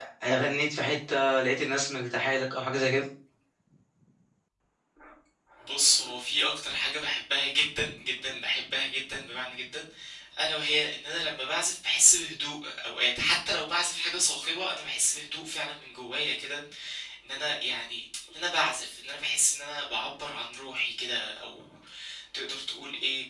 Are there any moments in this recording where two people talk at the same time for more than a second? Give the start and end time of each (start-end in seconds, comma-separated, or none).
none